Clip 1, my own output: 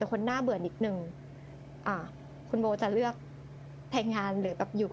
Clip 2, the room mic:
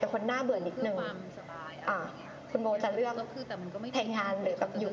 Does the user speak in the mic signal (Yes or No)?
Yes